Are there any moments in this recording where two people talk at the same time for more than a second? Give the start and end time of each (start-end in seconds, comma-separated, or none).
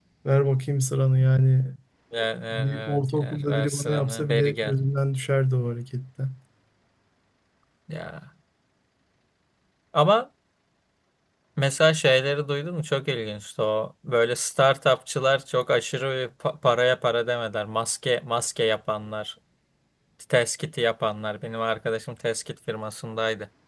2.5-4.7